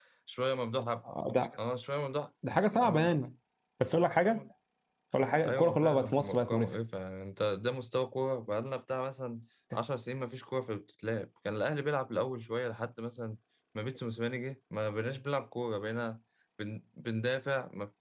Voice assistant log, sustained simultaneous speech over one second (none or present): present